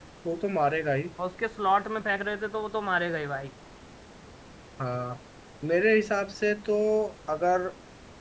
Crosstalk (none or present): none